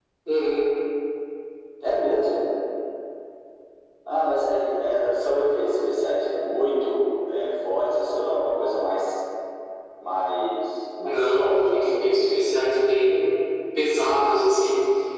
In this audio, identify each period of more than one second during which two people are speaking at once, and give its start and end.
11.0-12.4

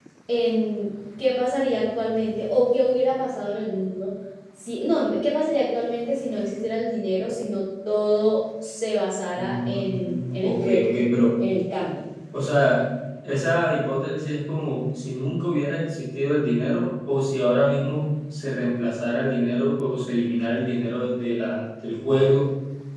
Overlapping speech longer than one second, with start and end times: 9.3-10.9

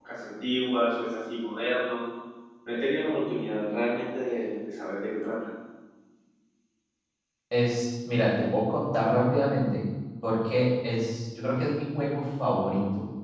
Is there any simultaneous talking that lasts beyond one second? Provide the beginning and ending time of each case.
none

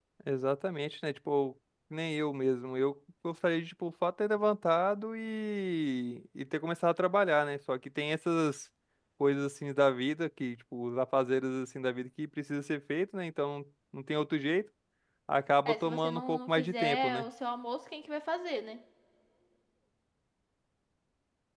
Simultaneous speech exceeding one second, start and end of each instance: 15.7-17.2

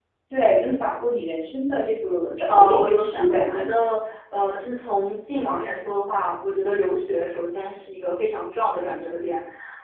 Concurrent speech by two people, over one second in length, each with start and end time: 2.5-3.7

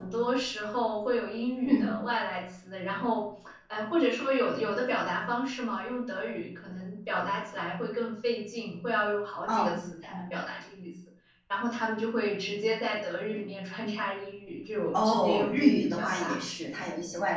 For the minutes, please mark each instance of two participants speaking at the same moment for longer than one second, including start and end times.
14.9-16.4

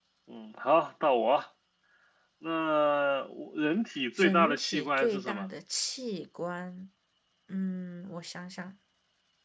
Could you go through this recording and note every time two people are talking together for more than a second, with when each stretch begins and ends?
4.2-5.5

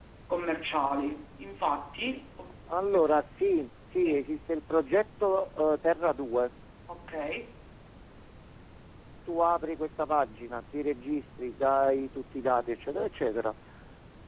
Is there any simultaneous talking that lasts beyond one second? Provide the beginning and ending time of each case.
none

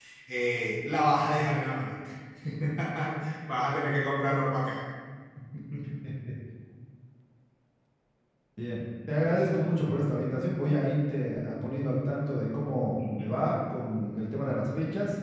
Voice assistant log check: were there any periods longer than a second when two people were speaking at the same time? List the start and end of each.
none

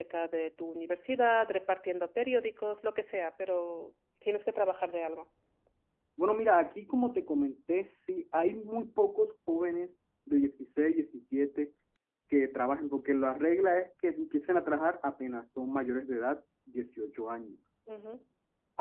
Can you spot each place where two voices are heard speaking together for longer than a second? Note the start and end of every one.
none

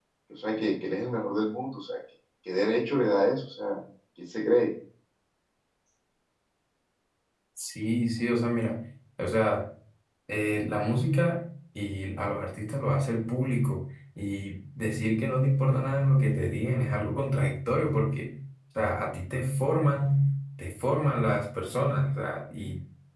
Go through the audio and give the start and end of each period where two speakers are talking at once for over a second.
none

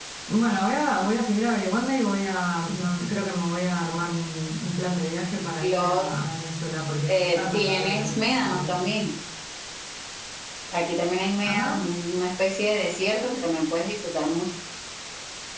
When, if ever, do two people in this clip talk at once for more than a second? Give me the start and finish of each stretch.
7.1-8.8

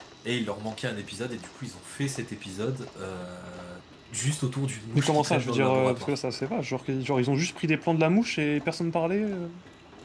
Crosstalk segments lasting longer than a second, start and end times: 5.0-6.2

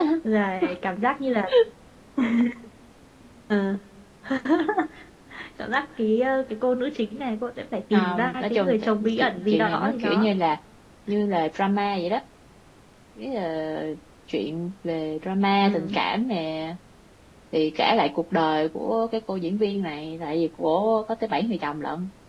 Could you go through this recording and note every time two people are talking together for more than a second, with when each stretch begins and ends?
7.9-10.3

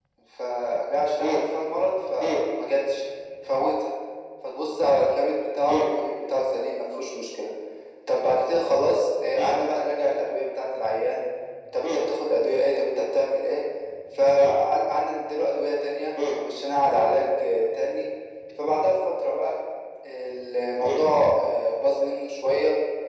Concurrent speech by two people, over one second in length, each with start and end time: none

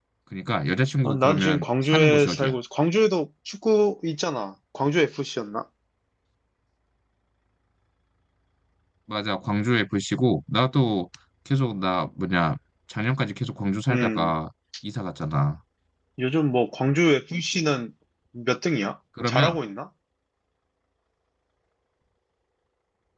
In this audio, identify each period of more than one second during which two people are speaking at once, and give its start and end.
1.1-2.6

